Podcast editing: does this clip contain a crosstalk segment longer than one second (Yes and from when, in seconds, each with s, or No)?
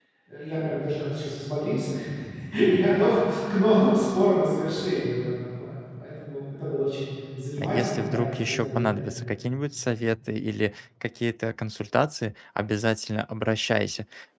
Yes, from 7.6 s